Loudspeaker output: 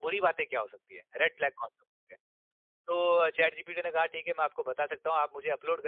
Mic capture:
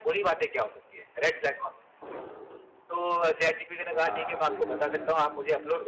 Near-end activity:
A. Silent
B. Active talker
B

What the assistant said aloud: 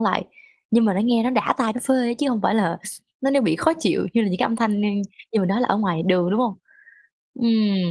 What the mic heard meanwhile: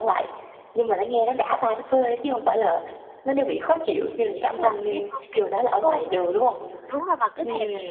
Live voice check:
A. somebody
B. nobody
A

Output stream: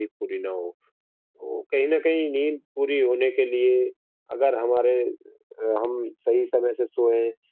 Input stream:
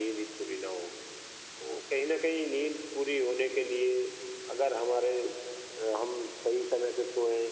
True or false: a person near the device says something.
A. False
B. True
A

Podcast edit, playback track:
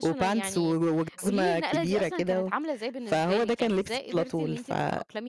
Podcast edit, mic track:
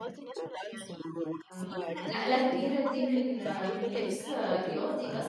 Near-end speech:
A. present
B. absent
A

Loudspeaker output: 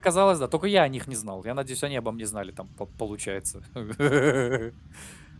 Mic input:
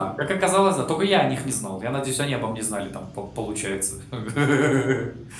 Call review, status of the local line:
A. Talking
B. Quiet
B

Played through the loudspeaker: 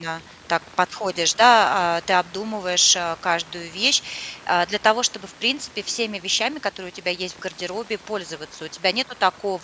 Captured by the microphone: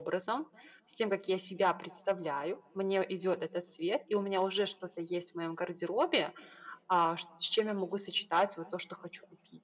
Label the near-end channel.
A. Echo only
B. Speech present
B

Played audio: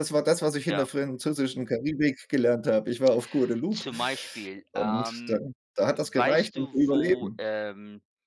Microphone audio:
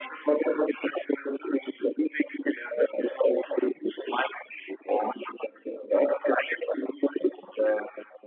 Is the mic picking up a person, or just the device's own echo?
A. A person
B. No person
B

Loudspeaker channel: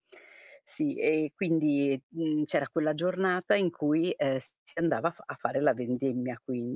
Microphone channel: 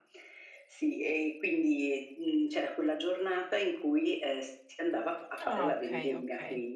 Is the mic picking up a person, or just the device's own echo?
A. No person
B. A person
B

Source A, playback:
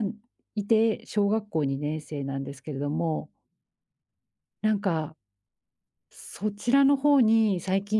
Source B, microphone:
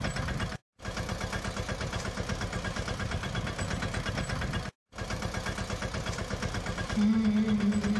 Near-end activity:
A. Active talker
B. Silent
A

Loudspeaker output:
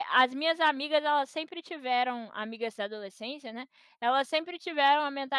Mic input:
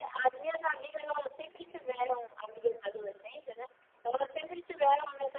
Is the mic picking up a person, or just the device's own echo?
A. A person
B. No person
B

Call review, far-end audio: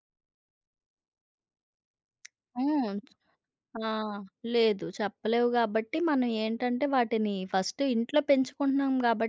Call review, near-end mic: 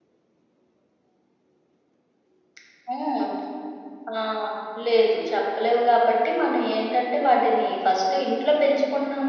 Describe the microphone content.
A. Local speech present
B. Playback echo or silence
B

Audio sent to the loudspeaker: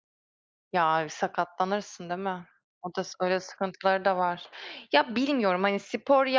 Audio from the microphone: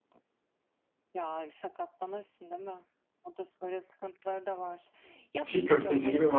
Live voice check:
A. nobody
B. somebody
B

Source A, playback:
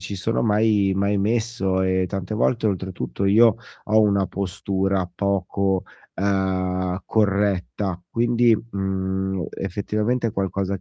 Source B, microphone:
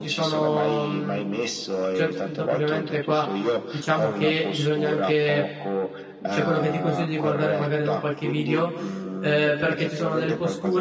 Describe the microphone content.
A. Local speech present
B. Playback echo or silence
A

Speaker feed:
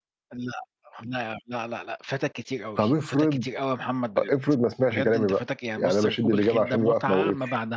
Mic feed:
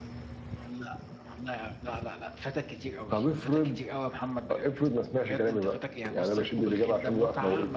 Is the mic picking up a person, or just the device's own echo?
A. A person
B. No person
B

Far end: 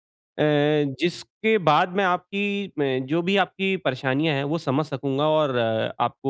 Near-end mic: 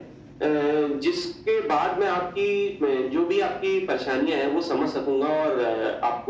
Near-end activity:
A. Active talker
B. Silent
A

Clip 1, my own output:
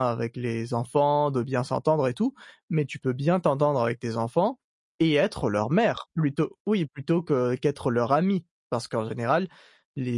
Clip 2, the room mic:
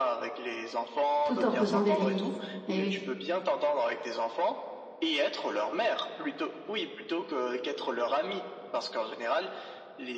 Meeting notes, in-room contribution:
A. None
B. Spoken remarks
B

